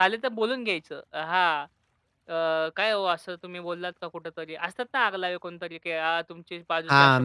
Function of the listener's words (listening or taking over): taking over